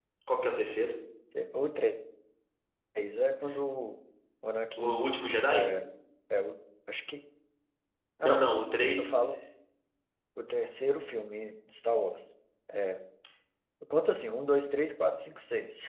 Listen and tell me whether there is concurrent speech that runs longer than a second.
No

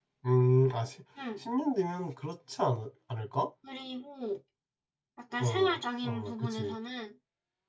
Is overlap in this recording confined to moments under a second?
No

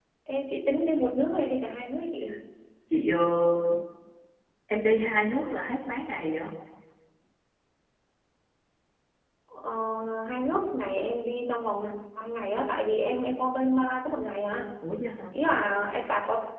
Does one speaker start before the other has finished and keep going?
No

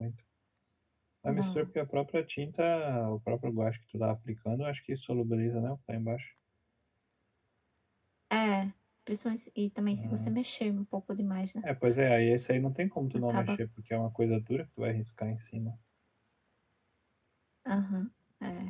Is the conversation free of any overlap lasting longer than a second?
Yes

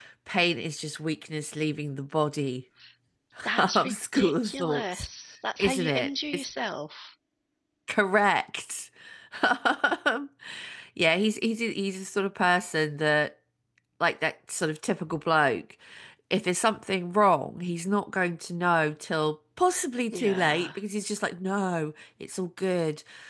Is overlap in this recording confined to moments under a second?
No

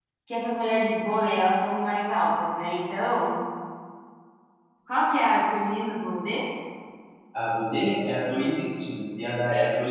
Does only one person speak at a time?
Yes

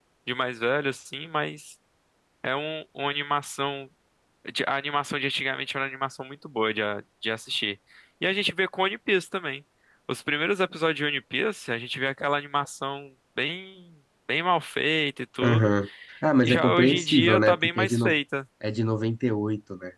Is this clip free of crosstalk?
No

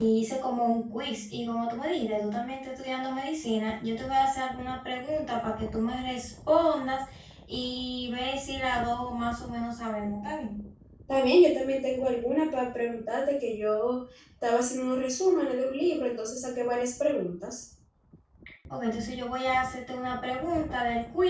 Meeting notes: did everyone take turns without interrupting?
Yes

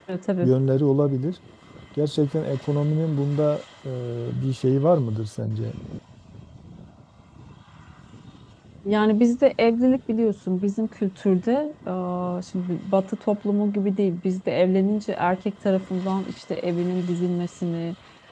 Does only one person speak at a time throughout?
Yes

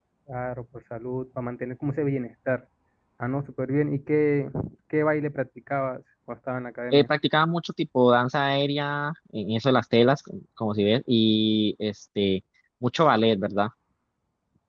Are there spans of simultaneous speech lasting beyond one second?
No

